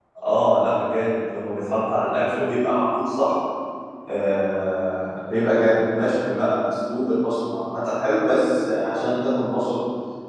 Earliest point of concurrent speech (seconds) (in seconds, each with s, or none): none